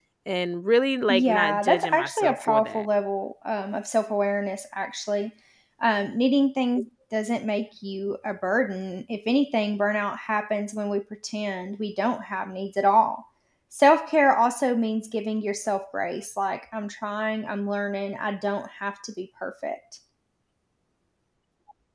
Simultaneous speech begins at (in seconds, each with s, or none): 1.1 s